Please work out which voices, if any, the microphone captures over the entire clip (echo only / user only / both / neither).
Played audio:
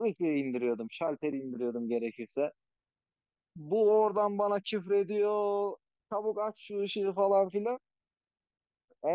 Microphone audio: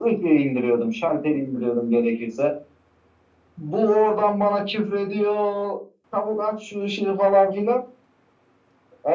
echo only